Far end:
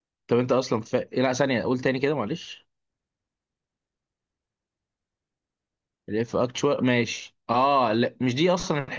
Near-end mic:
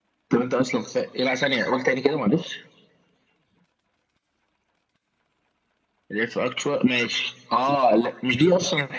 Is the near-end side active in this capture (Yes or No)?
No